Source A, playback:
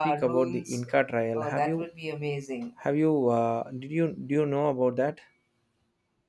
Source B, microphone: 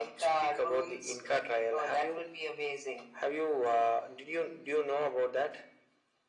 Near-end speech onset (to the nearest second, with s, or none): none